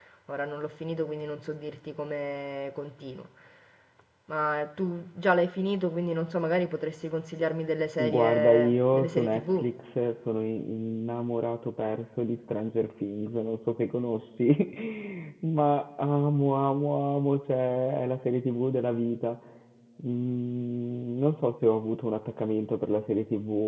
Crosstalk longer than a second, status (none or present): present